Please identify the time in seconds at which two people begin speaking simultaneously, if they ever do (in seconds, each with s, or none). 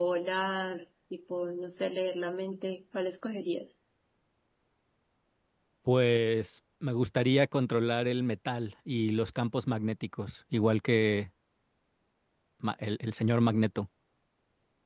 none